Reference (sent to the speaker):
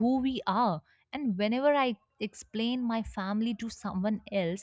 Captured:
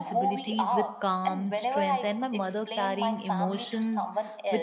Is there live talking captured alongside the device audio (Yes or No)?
Yes